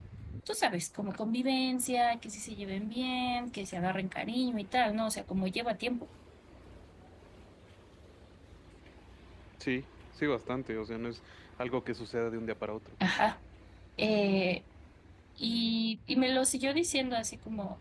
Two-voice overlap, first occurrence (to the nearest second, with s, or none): none